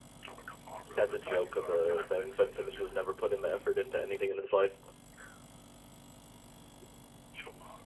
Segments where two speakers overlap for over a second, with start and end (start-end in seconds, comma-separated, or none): 0.8-3.0